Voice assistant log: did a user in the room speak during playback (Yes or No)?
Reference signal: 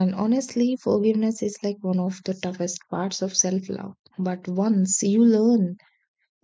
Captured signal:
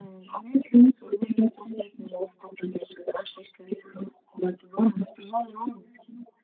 No